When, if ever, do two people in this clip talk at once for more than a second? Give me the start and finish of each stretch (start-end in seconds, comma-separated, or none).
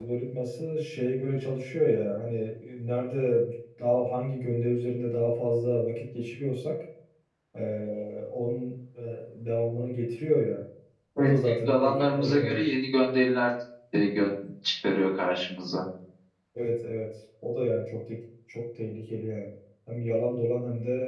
11.2-12.6